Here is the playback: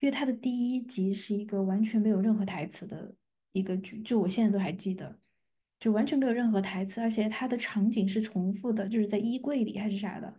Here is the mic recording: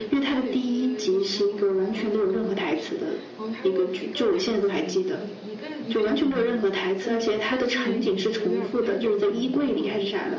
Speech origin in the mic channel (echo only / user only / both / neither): both